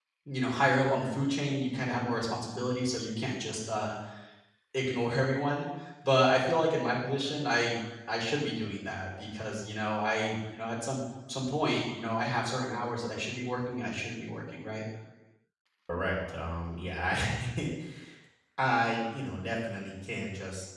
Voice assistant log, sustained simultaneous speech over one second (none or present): none